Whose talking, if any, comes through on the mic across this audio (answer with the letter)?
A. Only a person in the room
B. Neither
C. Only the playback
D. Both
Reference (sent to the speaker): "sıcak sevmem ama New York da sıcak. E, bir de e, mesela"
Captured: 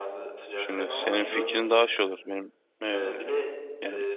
D